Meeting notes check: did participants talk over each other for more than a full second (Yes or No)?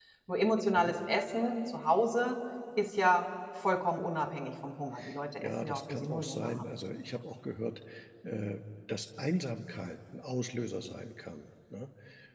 Yes